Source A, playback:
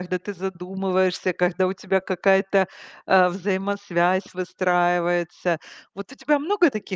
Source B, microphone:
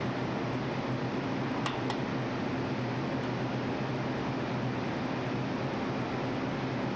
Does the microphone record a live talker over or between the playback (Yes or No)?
No